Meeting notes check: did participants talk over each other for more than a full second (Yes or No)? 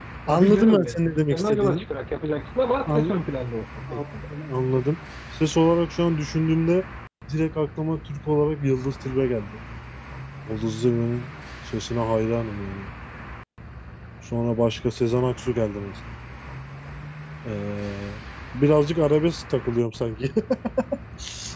Yes